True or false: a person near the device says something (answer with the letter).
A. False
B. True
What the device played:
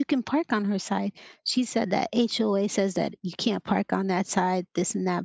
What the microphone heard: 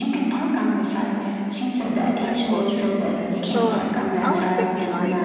B